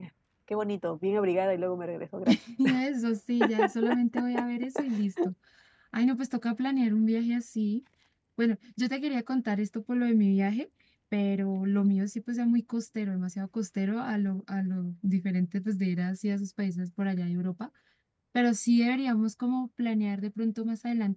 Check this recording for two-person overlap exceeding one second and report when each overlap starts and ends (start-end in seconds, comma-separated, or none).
none